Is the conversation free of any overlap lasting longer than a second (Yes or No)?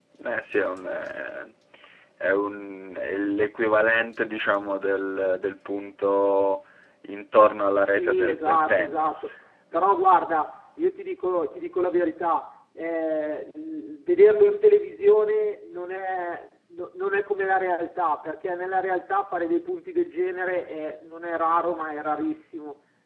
No